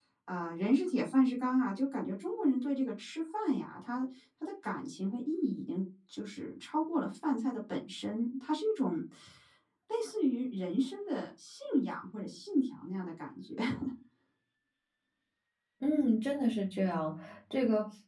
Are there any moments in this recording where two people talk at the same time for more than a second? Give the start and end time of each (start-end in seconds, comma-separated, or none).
none